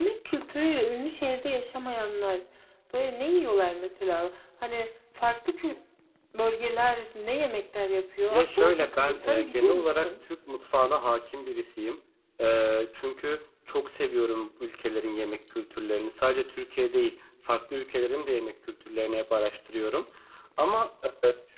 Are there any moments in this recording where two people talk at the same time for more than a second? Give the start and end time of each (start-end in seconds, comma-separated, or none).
8.3-10.2